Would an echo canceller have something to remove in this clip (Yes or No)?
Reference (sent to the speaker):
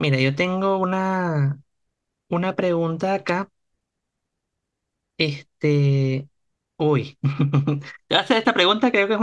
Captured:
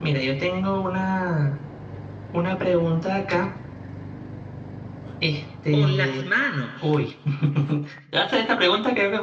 Yes